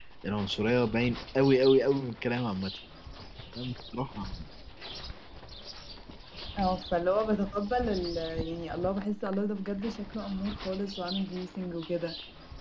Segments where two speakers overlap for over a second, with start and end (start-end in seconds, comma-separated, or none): none